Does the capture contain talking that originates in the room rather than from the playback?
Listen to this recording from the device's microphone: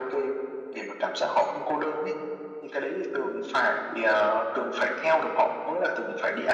No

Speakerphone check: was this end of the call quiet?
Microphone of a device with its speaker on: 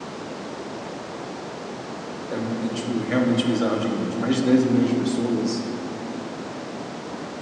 No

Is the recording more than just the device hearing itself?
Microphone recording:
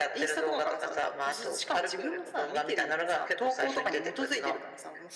No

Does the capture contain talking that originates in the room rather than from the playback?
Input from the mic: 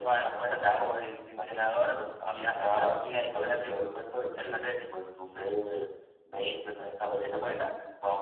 No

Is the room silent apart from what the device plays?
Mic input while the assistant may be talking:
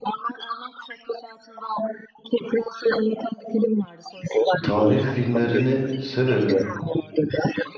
No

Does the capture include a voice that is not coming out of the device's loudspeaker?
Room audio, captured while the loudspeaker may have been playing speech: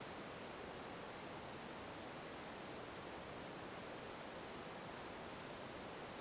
No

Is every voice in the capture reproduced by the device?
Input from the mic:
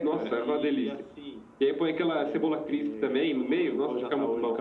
Yes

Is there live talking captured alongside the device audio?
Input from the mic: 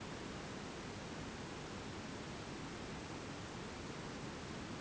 No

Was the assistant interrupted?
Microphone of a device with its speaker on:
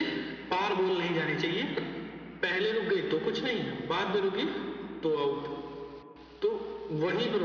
No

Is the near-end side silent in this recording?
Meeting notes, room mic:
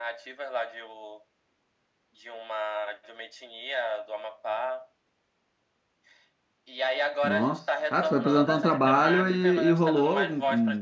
No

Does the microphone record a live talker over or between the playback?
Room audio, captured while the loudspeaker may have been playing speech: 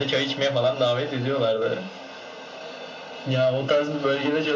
No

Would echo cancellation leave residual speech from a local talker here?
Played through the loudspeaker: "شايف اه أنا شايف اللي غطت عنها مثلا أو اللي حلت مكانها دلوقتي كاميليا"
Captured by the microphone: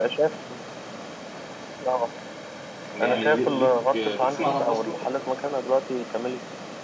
Yes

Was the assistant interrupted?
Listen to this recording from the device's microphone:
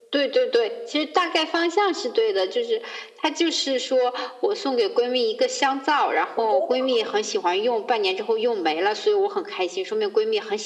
Yes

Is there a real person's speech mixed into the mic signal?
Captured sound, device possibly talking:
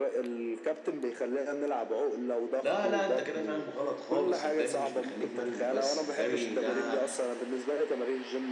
Yes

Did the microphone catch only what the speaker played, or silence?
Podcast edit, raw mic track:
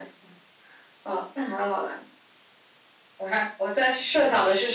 Yes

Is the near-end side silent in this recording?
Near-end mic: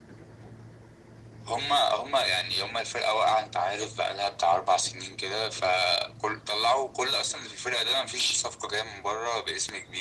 Yes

